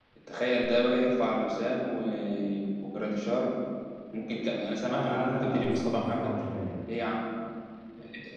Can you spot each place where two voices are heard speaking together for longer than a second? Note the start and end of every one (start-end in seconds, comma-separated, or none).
4.9-6.3